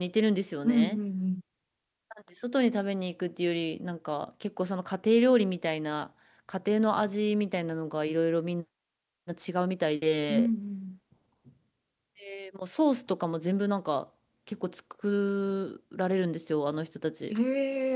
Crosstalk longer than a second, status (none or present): none